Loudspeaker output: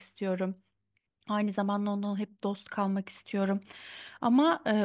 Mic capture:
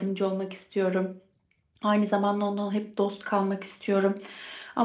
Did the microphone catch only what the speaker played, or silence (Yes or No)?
Yes